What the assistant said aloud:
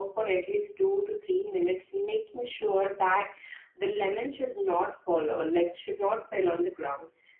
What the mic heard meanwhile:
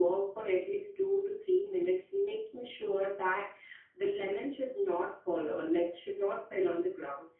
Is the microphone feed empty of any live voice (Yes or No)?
Yes